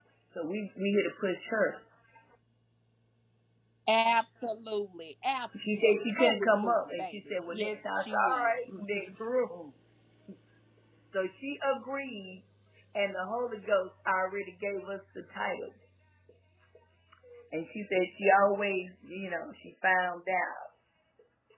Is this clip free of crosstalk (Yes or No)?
No